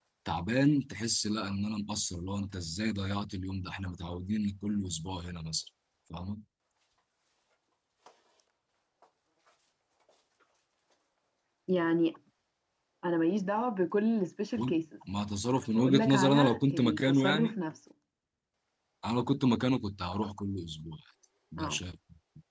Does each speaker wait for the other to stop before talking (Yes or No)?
No